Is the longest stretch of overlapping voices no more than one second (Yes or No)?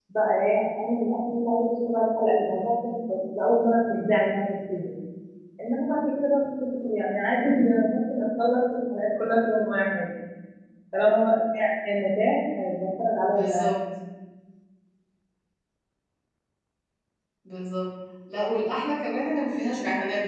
Yes